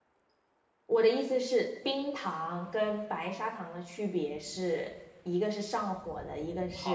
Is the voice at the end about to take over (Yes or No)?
Yes